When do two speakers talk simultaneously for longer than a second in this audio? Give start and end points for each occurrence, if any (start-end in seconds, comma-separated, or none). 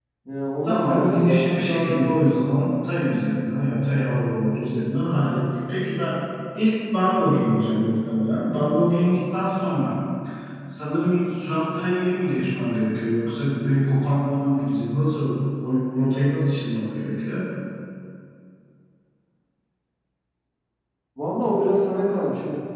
0.6-2.2